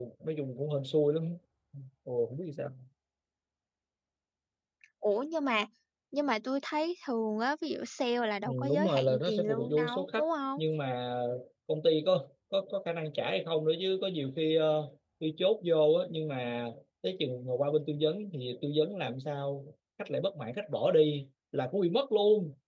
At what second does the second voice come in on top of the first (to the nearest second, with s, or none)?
8 s